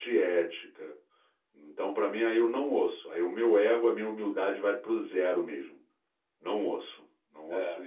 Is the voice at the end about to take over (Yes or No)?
Yes